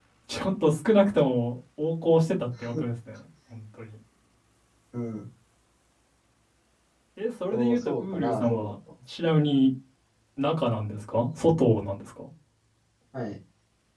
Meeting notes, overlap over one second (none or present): present